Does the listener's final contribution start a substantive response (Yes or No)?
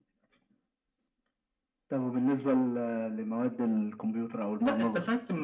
Yes